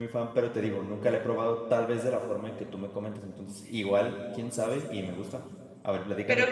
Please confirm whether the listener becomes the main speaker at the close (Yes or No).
Yes